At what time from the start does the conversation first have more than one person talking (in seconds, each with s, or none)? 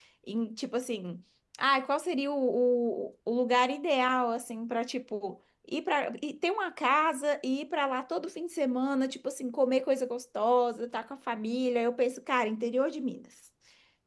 none